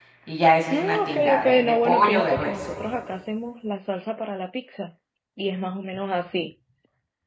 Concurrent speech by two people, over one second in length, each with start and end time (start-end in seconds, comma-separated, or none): 0.7-2.5